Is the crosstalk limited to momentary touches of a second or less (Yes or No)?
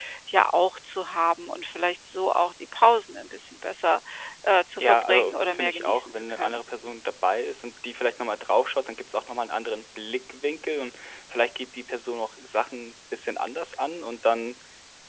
No